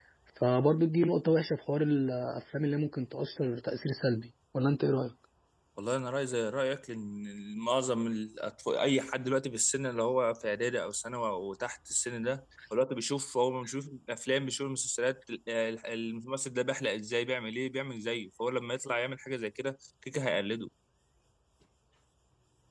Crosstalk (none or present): none